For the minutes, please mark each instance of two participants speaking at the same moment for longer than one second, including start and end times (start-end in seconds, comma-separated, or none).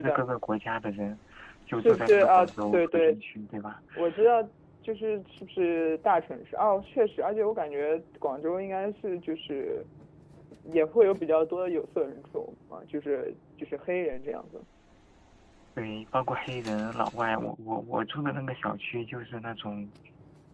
1.7-3.2